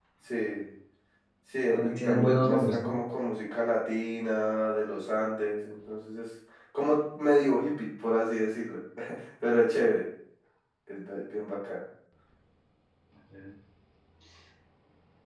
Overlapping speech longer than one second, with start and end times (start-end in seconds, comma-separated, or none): 1.7-2.9